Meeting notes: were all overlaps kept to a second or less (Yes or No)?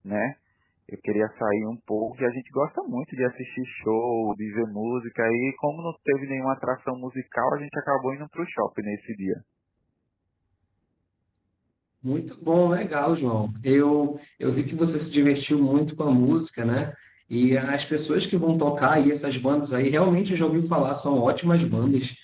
Yes